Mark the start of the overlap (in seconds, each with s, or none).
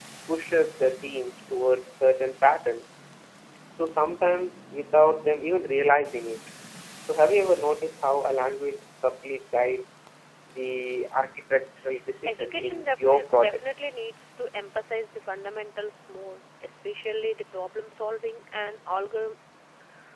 12.3 s